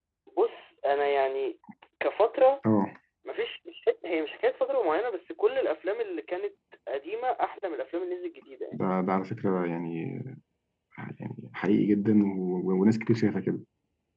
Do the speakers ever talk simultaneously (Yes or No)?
No